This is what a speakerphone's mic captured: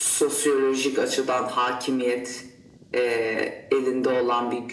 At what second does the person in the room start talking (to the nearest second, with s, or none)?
none